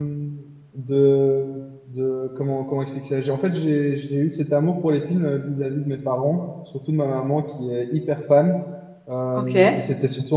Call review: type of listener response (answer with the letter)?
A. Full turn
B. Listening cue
B